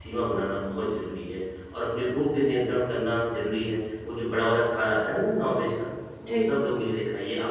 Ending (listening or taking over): listening